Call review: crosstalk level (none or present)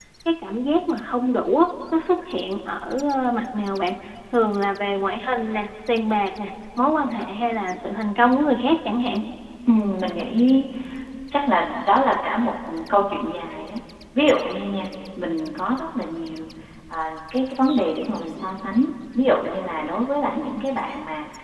none